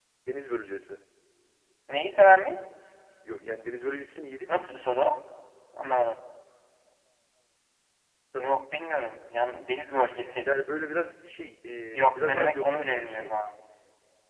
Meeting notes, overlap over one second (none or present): present